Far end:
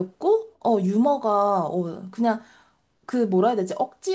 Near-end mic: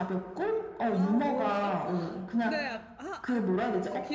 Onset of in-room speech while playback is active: 0.9 s

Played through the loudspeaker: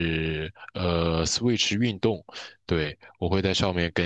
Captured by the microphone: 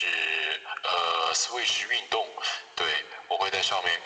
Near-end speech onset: none

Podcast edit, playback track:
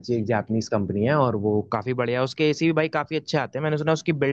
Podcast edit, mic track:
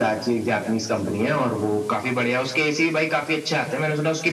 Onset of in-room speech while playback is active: none

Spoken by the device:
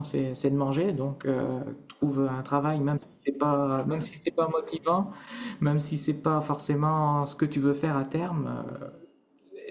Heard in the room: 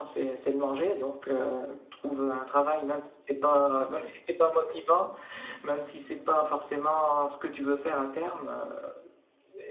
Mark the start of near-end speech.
none

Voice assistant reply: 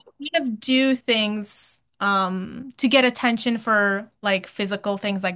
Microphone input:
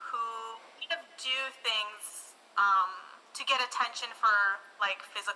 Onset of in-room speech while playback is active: none

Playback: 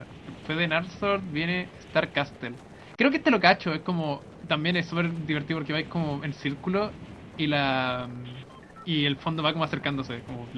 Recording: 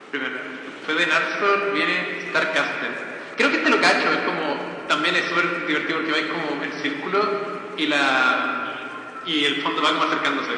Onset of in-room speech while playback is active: none

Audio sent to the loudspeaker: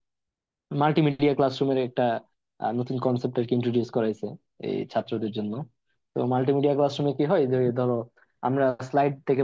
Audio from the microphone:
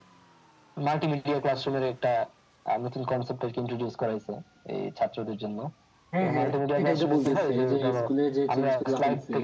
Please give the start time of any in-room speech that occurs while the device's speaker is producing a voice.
6.1 s

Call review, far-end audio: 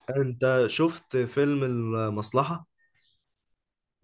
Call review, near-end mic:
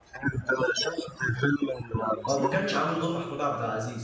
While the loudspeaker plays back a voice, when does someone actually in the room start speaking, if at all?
2.3 s

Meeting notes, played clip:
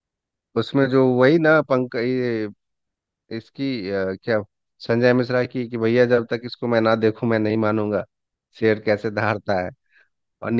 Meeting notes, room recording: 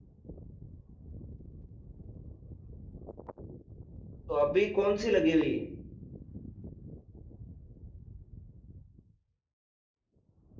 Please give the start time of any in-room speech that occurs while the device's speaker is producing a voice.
4.3 s

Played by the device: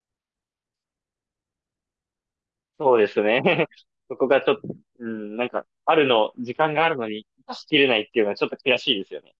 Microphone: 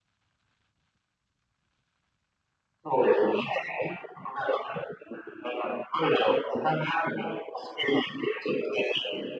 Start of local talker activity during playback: none

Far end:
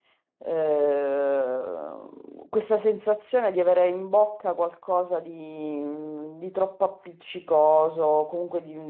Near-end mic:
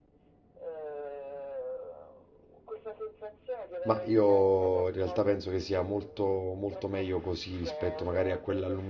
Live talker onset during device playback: 3.8 s

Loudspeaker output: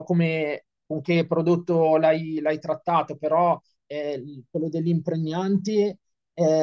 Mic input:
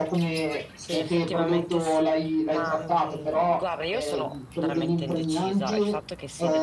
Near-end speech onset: 0.8 s

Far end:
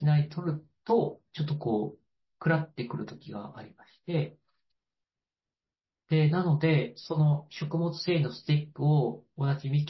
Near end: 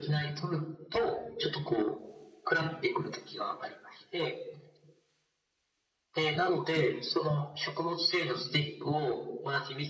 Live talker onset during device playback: none

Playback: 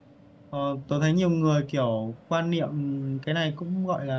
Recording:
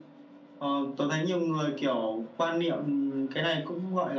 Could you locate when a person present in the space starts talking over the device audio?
none

